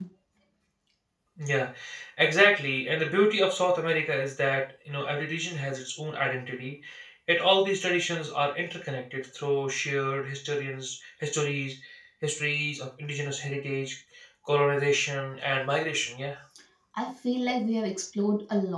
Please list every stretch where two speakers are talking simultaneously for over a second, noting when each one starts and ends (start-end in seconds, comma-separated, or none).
none